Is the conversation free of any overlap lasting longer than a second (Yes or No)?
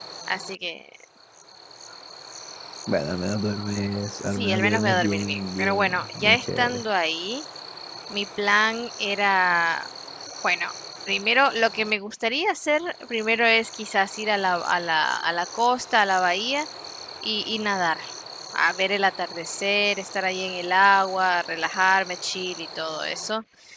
No